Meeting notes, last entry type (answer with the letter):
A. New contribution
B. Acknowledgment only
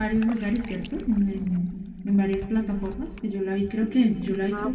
A